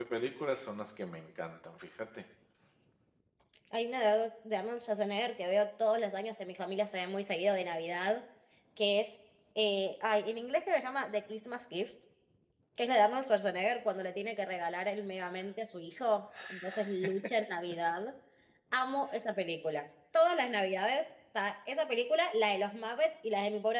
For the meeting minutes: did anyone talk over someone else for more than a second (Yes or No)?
No